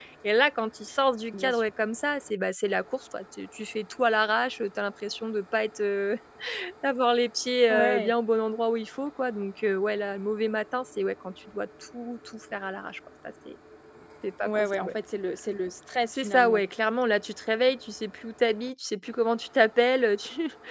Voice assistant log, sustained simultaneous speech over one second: none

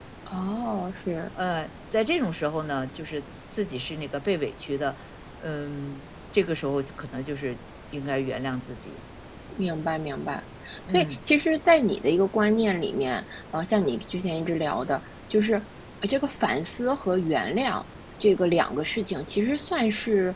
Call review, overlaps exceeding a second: none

